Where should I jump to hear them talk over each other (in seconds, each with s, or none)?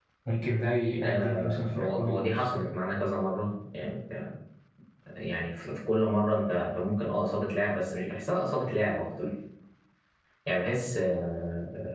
1.0 s